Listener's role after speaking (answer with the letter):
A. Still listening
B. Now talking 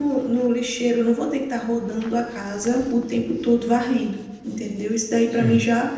A